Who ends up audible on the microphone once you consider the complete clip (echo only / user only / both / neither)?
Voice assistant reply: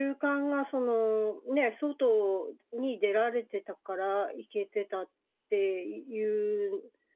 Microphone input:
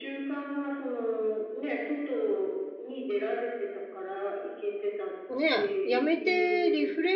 both